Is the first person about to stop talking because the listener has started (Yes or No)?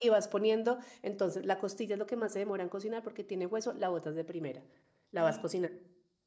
No